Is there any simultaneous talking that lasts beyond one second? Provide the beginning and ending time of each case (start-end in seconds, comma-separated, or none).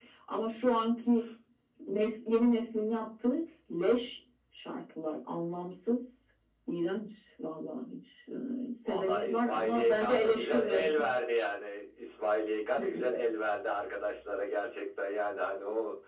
8.8-10.9